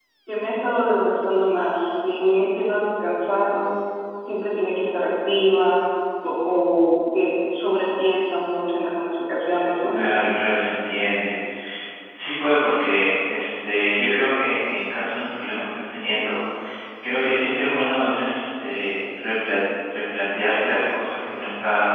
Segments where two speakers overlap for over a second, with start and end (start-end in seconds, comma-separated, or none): none